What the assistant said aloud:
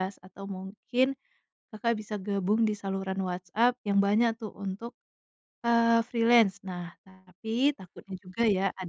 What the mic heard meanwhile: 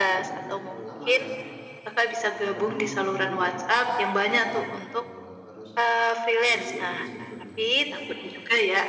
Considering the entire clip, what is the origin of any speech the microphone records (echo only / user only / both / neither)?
both